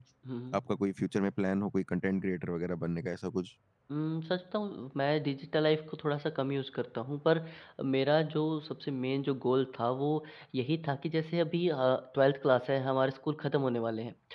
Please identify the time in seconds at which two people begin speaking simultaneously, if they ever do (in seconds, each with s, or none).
none